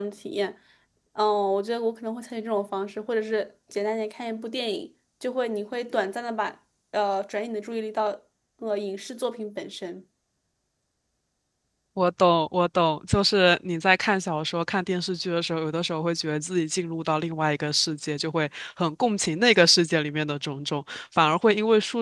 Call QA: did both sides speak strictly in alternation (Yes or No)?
Yes